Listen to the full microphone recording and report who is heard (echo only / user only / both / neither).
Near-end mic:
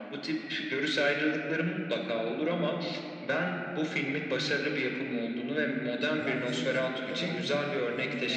both